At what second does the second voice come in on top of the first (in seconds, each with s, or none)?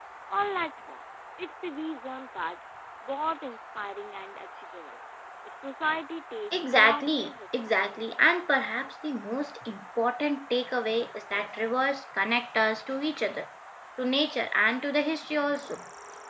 6.5 s